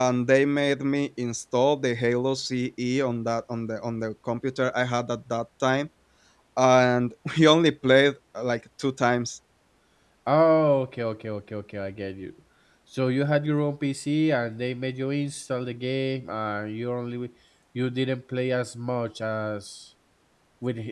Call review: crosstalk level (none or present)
none